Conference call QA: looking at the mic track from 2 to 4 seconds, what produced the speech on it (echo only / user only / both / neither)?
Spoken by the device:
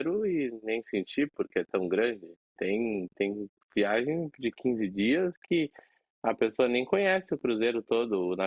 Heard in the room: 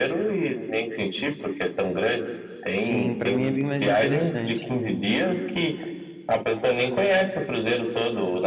both